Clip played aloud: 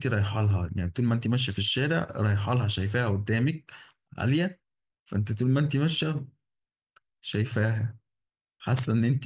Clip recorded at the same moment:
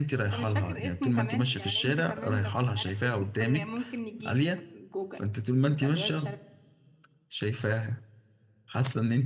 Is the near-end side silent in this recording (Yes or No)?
No